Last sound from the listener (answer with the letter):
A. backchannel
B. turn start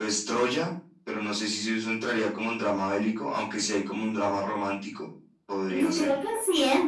B